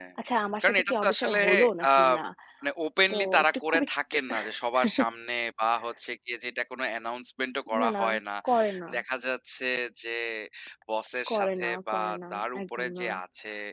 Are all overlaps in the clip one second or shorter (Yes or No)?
No